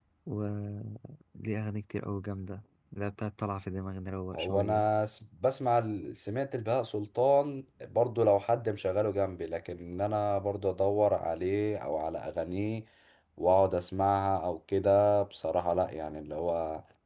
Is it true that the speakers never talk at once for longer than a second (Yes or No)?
Yes